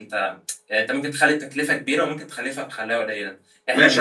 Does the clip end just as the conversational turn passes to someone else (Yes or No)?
Yes